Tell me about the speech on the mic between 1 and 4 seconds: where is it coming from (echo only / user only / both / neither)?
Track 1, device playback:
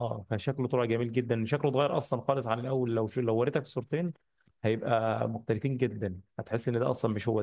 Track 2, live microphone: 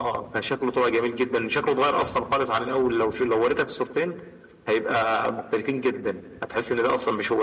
echo only